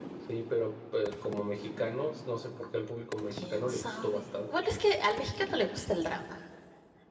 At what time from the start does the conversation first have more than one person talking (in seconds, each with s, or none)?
3.3 s